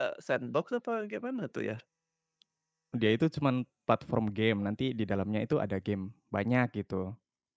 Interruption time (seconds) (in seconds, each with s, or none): none